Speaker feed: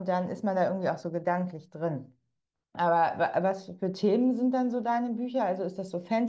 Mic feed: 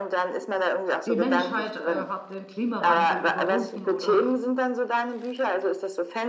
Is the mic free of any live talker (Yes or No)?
No